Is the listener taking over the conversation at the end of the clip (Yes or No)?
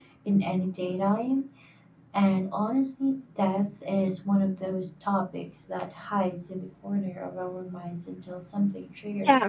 Yes